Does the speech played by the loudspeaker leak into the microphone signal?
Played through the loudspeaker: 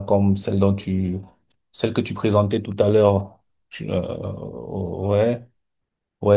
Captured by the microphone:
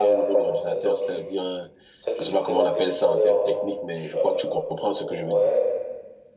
Yes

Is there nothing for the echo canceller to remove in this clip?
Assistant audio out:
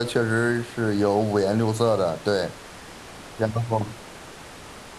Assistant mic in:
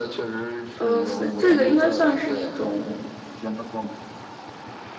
No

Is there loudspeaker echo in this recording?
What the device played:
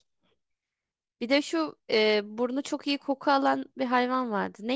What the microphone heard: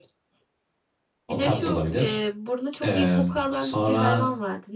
Yes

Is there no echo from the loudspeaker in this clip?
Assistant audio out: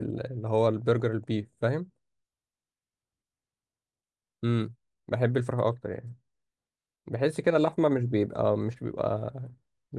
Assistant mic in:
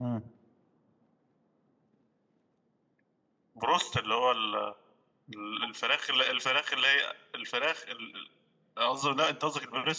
Yes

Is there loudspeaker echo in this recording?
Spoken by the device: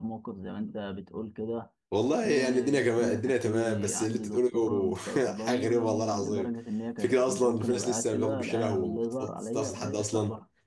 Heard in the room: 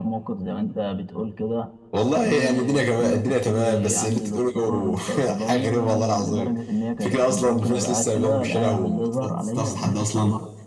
Yes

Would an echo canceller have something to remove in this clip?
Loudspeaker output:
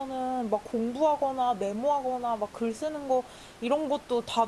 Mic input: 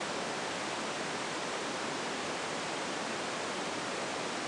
No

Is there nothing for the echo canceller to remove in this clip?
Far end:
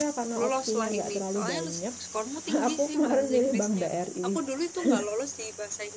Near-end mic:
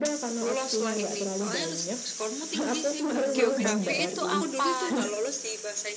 No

